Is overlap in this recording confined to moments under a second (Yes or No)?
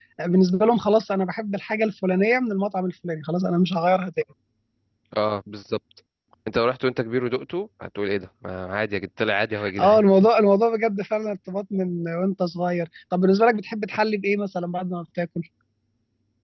Yes